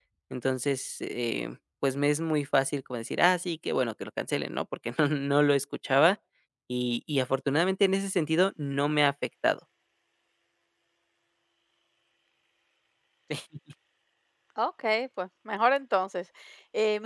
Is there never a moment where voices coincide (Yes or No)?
Yes